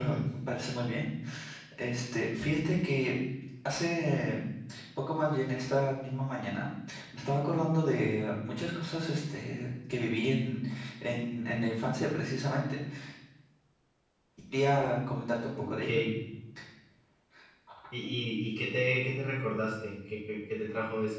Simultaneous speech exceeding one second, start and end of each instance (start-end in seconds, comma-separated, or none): none